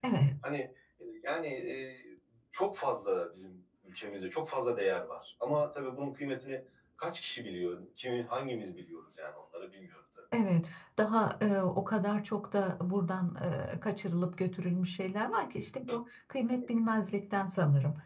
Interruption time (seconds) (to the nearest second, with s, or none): none